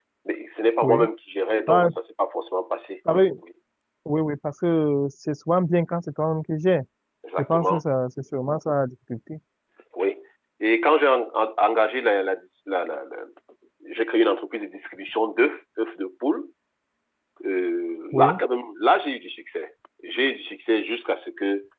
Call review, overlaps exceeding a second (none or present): none